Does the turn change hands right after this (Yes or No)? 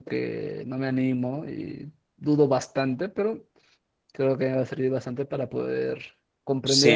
Yes